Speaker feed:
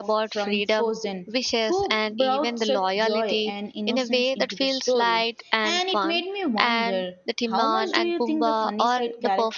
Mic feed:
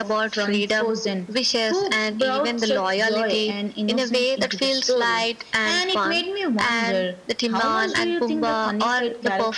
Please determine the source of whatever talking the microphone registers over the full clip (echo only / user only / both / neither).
echo only